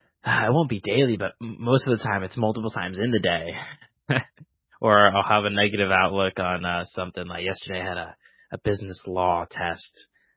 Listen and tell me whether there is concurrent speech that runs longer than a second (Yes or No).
No